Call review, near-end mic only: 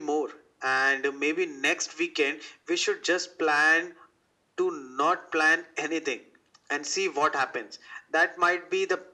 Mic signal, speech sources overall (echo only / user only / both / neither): echo only